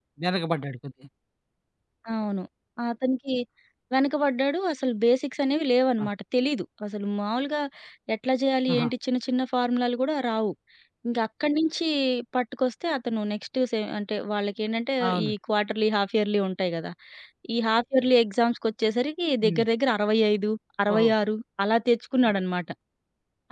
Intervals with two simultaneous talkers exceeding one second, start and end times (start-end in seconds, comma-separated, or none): none